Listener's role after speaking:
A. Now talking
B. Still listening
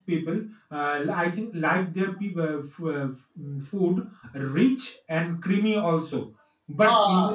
B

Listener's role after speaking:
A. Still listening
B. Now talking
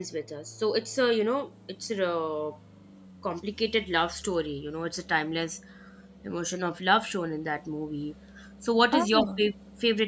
A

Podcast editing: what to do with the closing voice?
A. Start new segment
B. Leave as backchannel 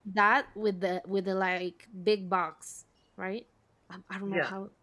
A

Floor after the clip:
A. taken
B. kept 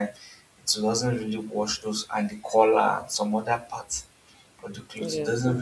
B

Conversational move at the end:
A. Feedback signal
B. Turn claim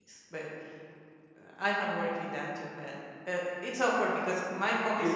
B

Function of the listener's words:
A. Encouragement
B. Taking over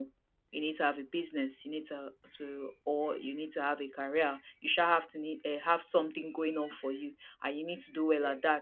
A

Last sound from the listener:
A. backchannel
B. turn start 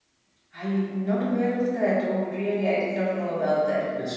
B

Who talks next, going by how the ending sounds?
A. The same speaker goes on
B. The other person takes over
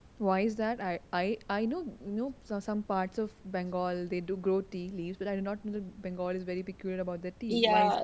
B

